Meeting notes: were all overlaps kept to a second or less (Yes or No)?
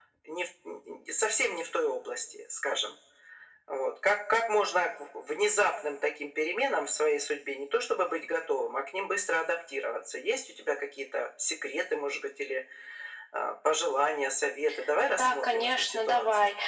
No